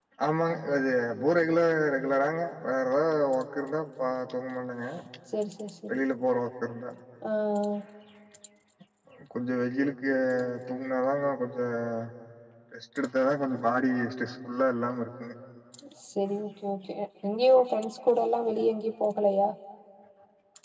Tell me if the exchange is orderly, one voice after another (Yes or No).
Yes